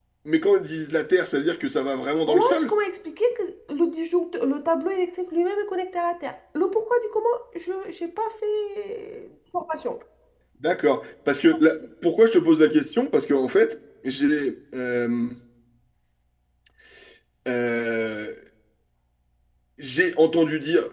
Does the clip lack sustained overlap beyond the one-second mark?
Yes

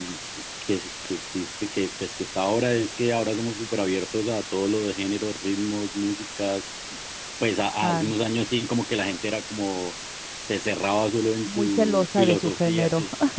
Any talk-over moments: Yes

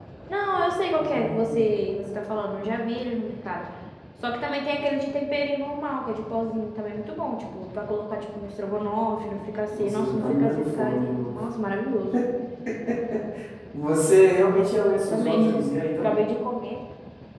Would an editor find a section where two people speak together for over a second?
Yes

